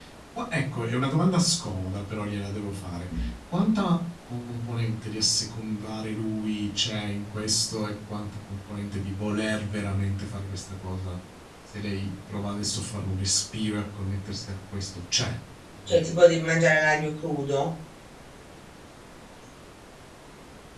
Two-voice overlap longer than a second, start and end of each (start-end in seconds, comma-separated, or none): none